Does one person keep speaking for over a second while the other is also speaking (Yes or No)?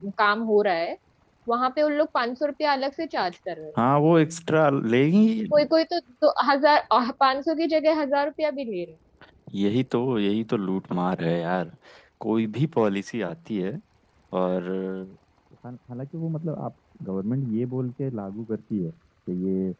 No